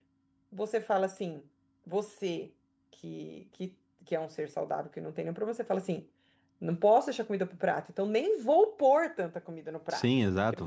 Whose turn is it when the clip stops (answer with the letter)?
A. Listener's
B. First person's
A